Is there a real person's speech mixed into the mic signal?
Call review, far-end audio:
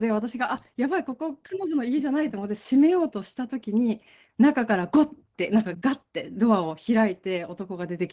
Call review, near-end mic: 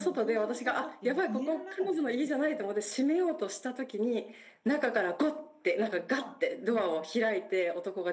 Yes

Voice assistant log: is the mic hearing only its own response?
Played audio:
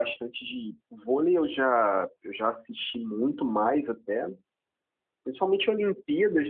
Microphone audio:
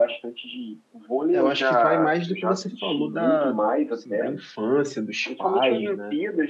No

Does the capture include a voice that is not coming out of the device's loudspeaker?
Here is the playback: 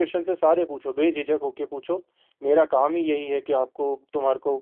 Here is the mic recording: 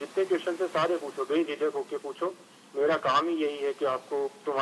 No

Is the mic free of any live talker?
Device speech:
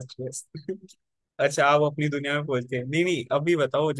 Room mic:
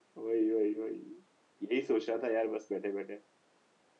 No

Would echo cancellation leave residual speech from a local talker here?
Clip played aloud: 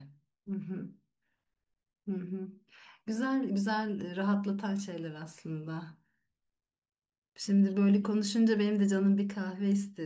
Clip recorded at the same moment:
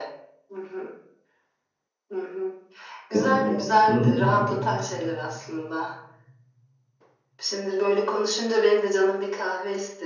Yes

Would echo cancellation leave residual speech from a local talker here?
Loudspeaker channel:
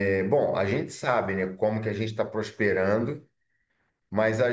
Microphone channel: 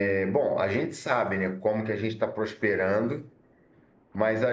No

